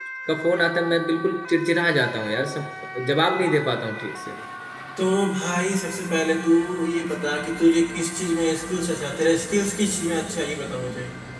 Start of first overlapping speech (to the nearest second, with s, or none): none